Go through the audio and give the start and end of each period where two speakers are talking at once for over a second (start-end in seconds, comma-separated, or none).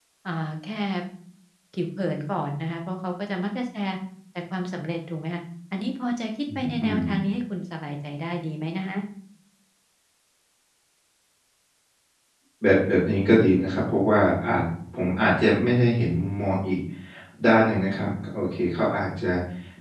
none